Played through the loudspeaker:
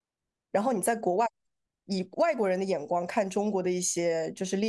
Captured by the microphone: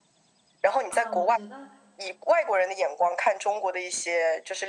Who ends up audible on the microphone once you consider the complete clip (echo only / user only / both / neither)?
both